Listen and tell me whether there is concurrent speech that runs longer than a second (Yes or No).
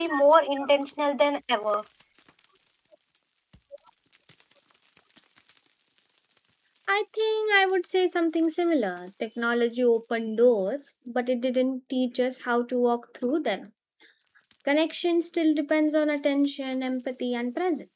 No